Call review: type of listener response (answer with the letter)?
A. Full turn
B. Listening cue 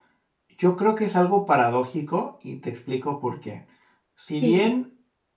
B